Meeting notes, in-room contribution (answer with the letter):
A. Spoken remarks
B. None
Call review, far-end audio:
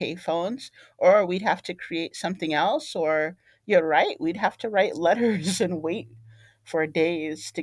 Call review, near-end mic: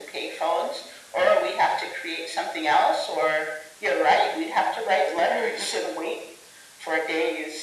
B